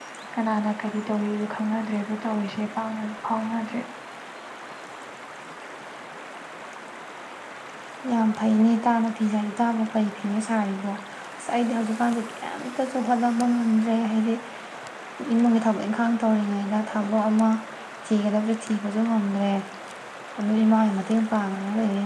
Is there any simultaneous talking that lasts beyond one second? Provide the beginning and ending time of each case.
none

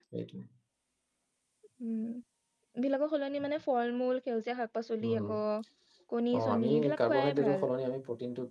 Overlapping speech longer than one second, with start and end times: 6.4-7.7

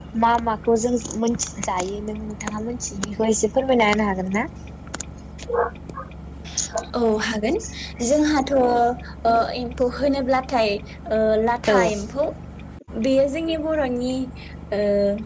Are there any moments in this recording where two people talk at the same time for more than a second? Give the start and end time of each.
none

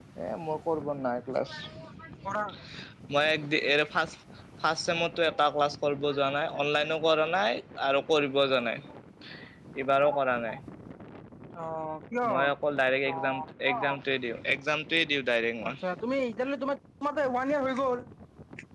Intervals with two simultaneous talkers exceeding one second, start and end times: none

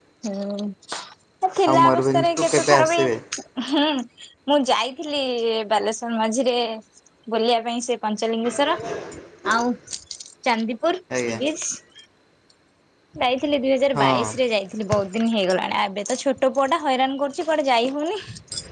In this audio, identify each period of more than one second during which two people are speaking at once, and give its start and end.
1.7-3.0

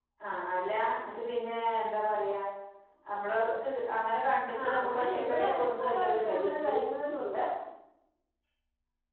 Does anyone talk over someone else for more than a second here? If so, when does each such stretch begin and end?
4.6-6.8

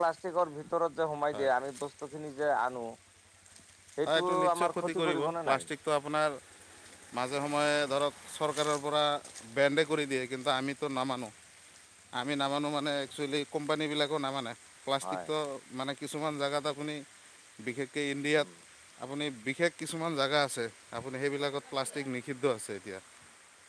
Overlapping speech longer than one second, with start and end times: 4.0-5.6

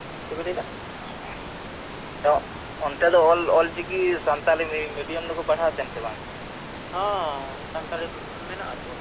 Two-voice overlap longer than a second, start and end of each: none

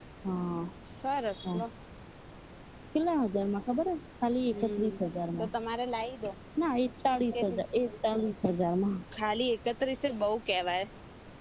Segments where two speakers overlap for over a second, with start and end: none

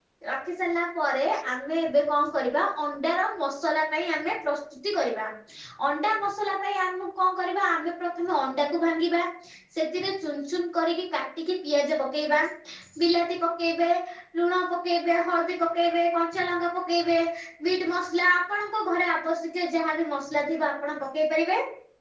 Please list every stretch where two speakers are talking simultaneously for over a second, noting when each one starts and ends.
none

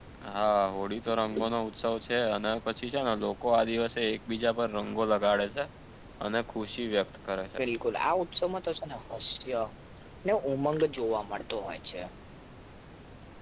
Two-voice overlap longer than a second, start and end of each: none

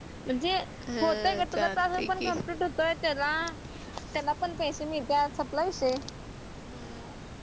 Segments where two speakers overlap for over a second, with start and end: 1.0-2.5

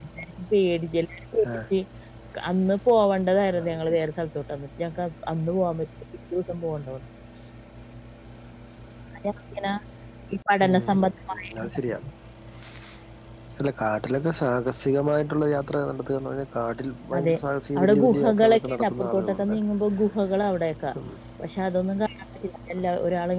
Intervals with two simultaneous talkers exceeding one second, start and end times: 17.8-19.6

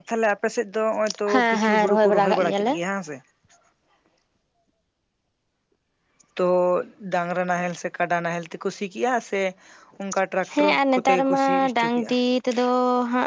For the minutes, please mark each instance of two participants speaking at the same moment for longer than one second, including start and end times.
1.3-2.7, 10.6-12.1

